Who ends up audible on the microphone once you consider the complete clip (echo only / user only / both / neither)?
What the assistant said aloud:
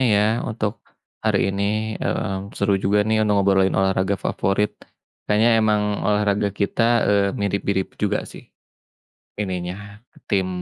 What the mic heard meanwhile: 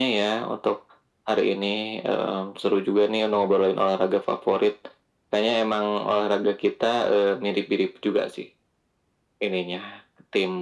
echo only